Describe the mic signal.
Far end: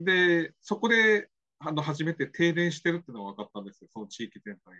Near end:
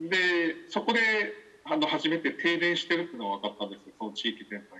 echo only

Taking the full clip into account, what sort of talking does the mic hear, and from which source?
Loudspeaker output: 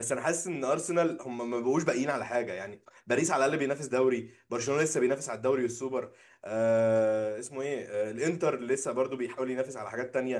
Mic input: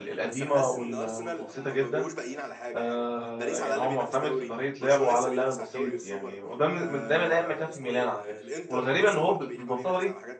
both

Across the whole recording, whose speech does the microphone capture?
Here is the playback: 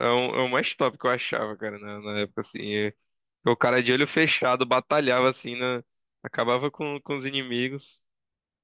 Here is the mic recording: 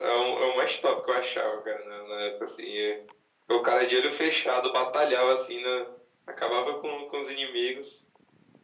echo only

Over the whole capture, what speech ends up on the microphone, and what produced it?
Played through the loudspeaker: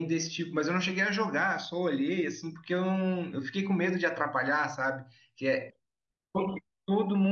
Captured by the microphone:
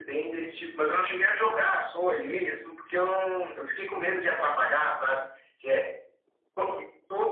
echo only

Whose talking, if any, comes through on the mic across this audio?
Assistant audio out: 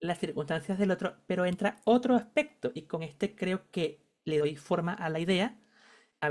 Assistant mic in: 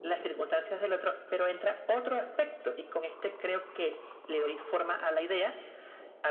echo only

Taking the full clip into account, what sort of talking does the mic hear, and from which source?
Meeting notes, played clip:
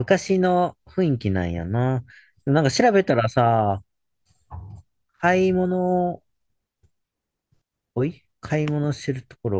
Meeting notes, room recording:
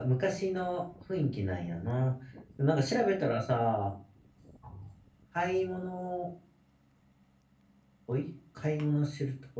echo only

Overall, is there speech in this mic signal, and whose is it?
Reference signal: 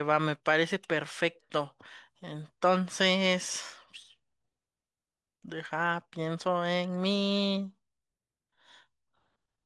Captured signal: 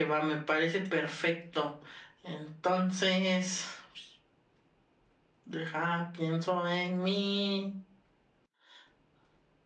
echo only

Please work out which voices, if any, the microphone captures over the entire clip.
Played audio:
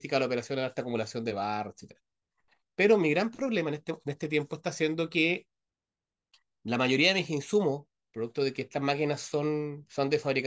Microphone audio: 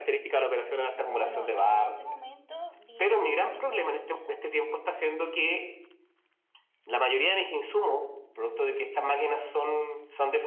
both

